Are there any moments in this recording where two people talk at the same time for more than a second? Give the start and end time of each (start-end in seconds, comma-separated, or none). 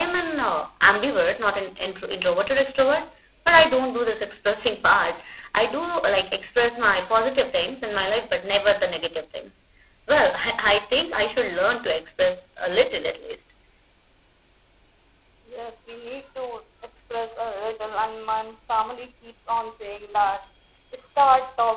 none